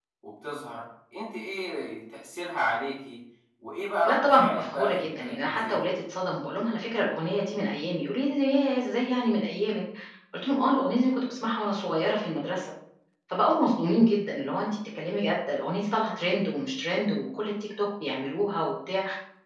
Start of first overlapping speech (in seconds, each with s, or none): 4.0 s